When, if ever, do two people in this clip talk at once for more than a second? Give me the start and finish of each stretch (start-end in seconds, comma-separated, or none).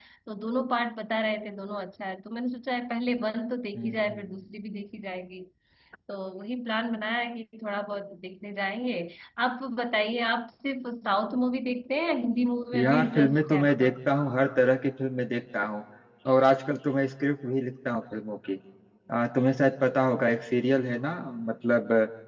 12.7-13.9